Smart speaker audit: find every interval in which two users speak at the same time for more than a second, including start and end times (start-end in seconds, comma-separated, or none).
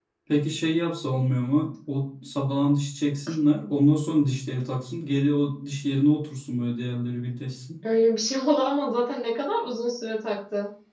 none